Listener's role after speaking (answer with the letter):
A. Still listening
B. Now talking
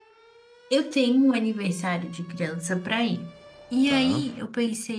A